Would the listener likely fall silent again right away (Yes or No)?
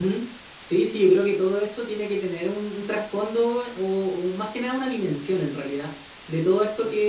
Yes